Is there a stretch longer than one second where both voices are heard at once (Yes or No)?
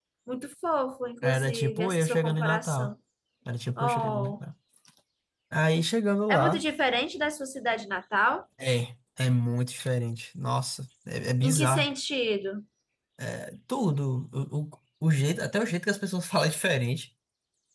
Yes